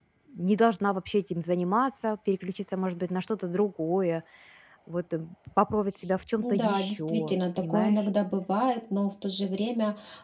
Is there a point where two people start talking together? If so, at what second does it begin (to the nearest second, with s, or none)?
6 s